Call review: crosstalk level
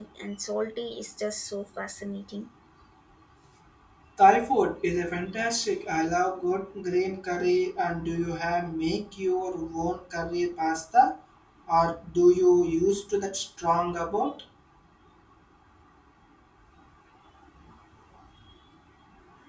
none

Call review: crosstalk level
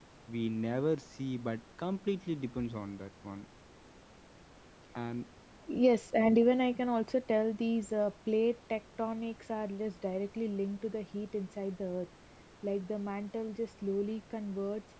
none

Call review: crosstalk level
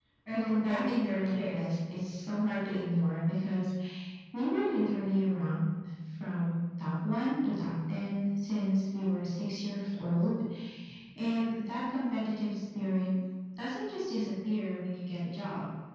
present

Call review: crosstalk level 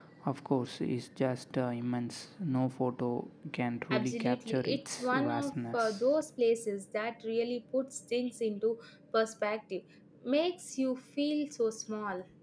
present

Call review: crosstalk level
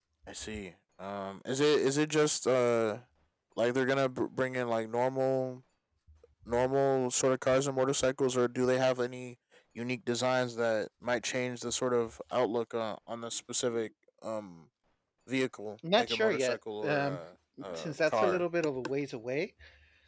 present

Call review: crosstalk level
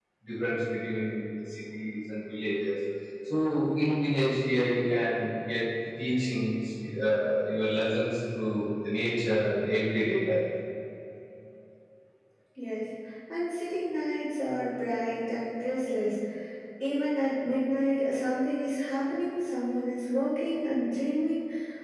none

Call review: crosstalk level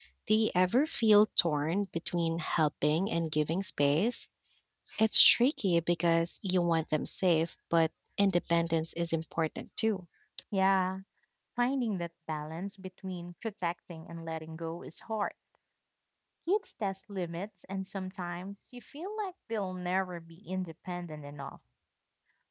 none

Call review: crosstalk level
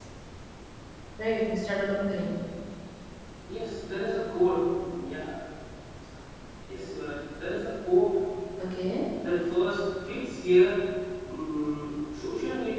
none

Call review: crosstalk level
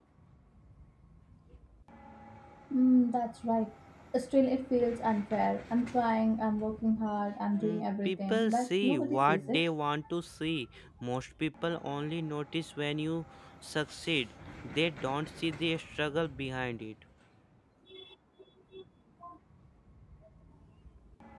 present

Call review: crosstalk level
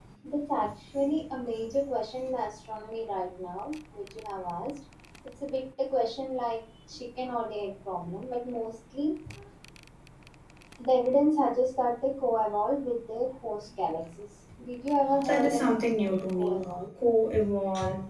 present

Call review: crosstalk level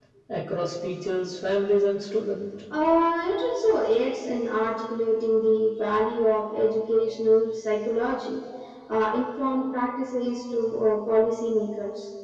none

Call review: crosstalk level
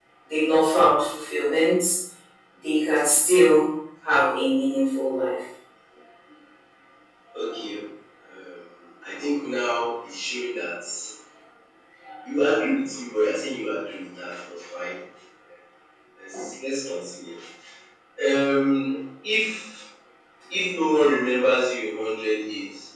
none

